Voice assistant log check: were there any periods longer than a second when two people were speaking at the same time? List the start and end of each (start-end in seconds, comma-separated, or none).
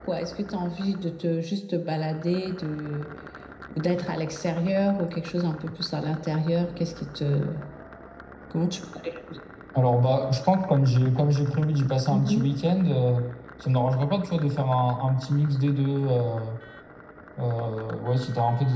none